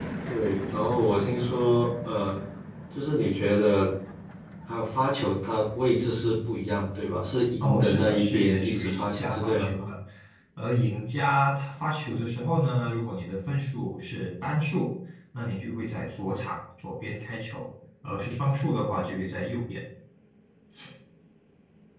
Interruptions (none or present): present